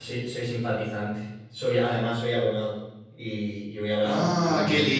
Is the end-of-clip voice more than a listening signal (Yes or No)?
Yes